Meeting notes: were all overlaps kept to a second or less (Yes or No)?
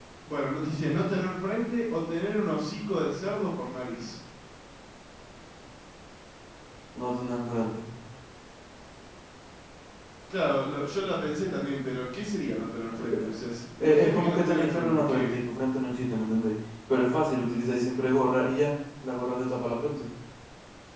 No